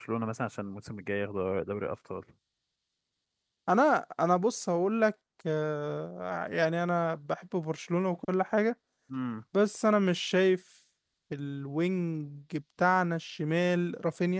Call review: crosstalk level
none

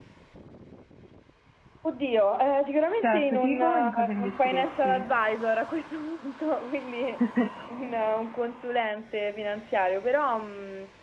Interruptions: present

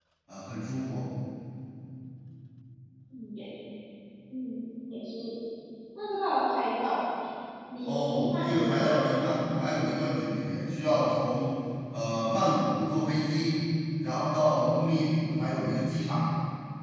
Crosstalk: present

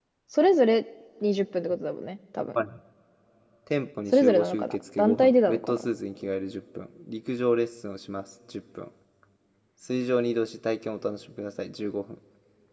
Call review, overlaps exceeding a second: present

